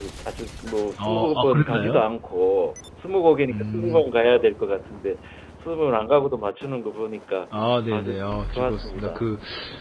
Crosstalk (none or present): present